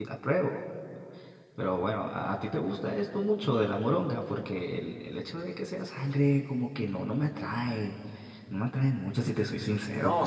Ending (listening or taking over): taking over